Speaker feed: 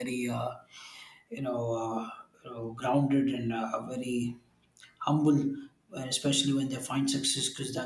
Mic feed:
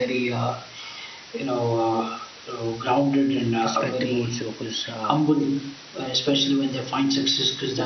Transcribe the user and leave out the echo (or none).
perspective also, because uh,